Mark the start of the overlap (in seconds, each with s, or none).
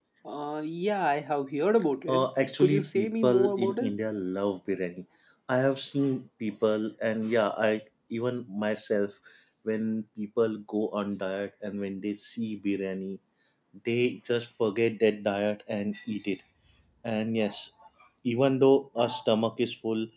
2.1 s